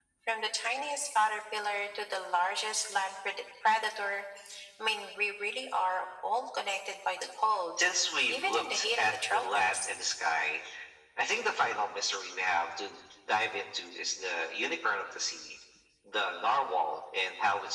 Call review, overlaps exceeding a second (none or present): present